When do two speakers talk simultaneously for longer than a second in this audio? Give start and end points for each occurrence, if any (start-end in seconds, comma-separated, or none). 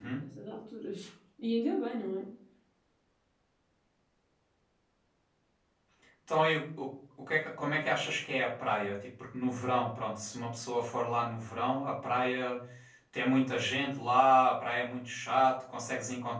none